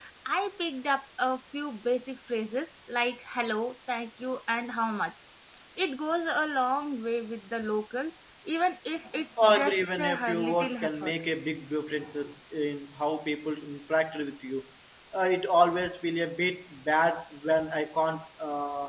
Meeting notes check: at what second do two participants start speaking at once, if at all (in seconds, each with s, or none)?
9.4 s